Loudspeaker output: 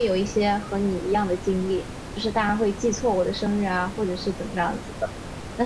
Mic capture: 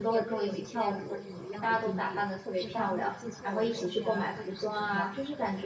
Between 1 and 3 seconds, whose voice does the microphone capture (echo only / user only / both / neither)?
both